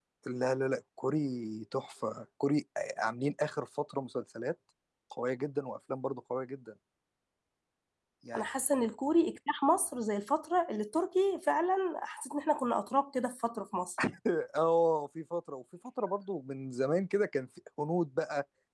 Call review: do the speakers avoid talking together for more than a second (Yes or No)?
Yes